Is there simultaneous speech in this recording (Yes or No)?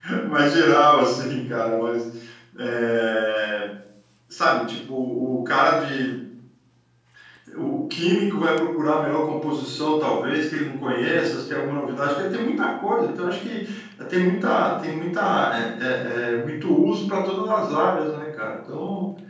No